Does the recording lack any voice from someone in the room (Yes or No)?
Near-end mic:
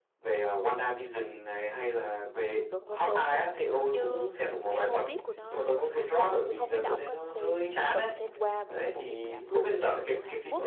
No